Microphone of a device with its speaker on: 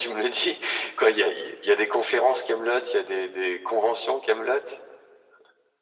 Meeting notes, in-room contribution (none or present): none